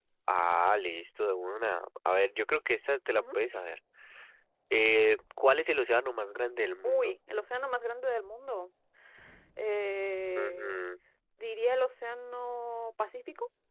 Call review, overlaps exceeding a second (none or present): none